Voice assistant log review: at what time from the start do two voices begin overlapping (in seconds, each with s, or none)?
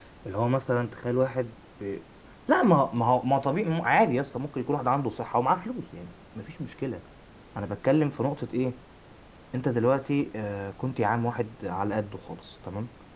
none